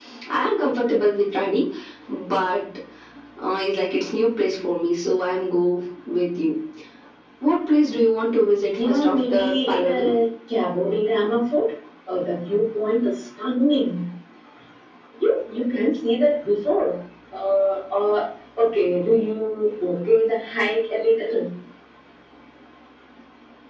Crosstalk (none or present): present